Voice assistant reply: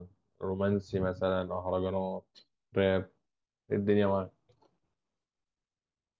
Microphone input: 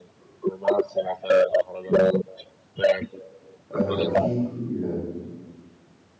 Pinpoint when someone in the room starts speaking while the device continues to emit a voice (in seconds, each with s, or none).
3.8 s